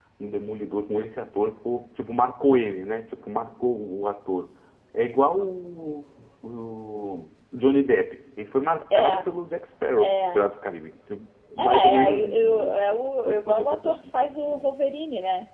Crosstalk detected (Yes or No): Yes